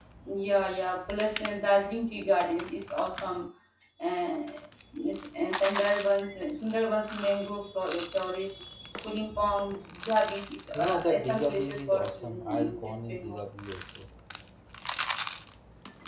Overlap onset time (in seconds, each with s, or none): 10.7 s